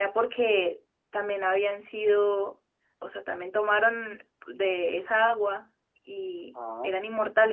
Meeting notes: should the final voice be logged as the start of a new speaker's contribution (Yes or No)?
No